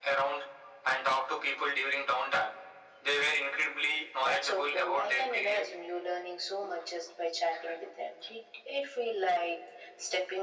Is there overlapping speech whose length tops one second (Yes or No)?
Yes